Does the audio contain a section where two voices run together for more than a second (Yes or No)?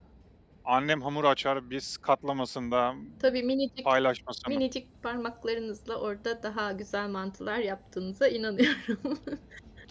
No